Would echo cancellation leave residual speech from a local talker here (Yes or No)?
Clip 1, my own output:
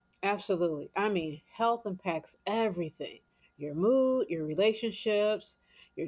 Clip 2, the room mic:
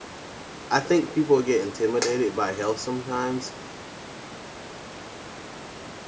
Yes